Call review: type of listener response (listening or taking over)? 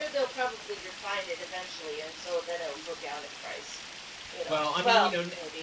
taking over